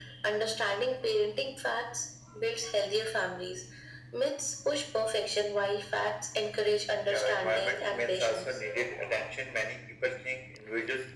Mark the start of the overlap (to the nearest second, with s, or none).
7 s